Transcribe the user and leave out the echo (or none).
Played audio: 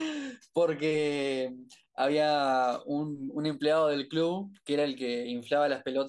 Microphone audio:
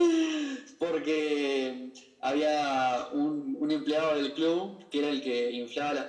none